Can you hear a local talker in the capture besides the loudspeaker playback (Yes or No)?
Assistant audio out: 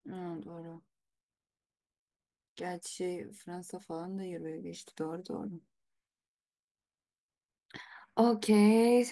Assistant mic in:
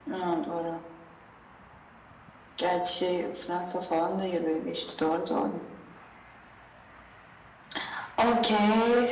No